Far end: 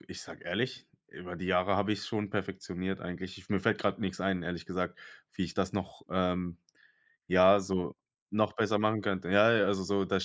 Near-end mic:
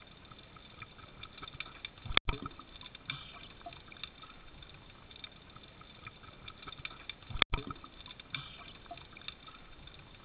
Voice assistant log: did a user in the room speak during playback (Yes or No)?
No